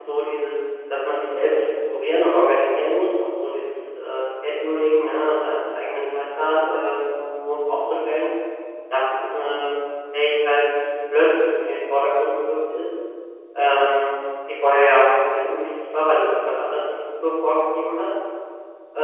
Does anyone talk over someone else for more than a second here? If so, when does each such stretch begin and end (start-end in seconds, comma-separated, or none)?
none